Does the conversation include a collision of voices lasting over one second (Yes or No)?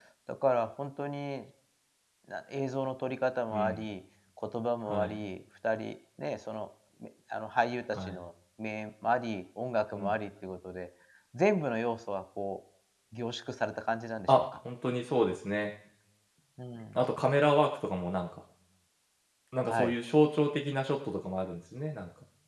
No